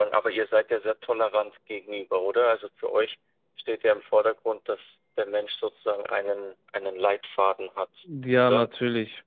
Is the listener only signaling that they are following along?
No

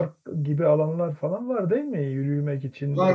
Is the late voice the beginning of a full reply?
Yes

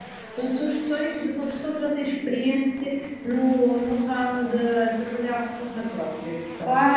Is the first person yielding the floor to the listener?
Yes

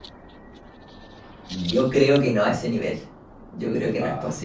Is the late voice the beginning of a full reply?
No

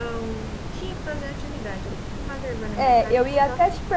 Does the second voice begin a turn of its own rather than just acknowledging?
Yes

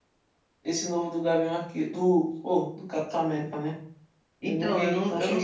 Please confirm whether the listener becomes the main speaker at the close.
Yes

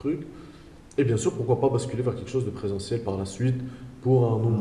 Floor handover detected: No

